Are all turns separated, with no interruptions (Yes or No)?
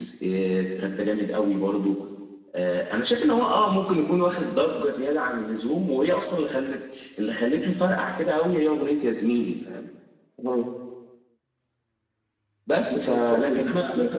No